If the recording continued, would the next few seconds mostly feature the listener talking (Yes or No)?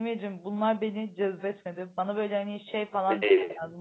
No